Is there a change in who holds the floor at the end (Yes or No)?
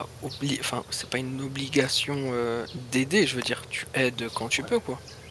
Yes